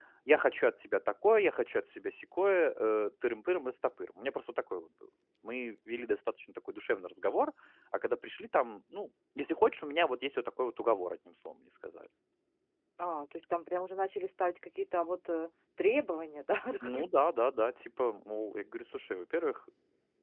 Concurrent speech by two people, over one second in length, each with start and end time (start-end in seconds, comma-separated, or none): none